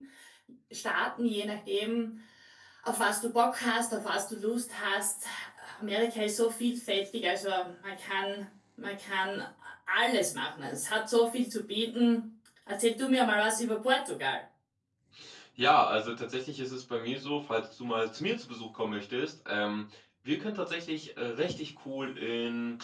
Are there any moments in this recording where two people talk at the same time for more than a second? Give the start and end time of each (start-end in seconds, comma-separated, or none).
none